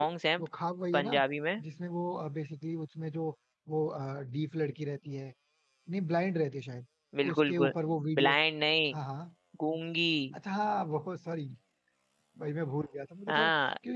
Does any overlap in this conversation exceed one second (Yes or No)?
No